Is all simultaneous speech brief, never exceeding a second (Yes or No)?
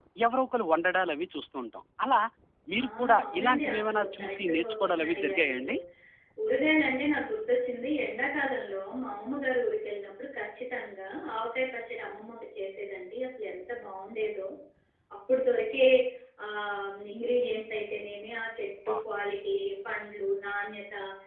No